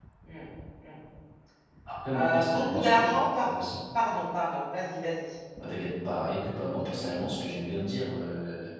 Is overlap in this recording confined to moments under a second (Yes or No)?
No